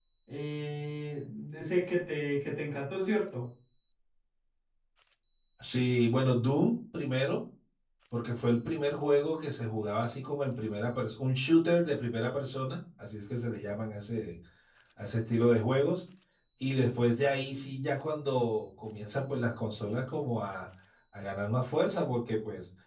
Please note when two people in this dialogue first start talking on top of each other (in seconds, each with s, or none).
none